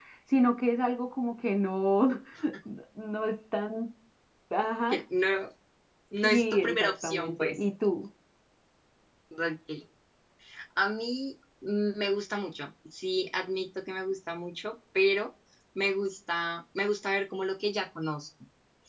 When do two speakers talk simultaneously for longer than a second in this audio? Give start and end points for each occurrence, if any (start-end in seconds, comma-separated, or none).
6.2-7.6